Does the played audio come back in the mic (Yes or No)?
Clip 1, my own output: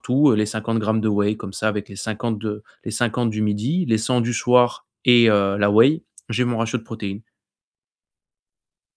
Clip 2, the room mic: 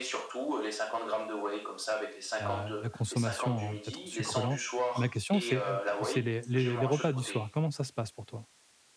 Yes